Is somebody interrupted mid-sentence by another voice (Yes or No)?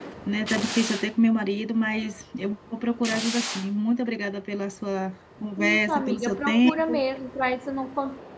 Yes